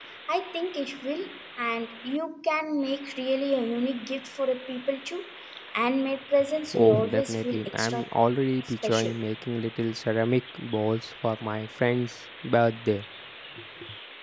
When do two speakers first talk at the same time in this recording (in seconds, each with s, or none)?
6.7 s